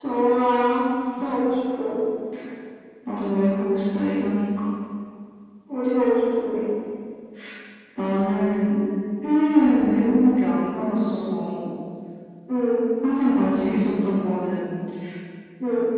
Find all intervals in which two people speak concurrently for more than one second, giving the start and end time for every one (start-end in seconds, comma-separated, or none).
none